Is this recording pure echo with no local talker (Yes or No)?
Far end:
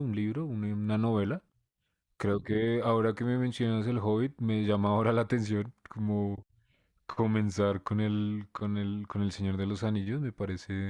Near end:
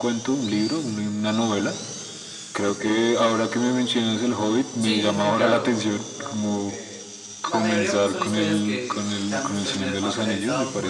No